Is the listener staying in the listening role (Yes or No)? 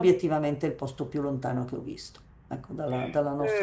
No